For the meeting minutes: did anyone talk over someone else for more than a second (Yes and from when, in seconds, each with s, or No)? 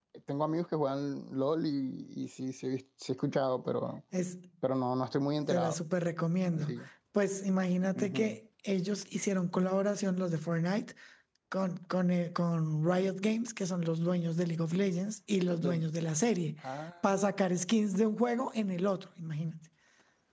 No